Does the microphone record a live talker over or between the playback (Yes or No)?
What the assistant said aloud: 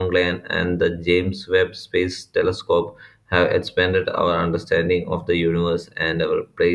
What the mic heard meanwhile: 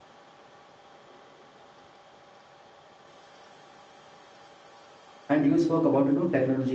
Yes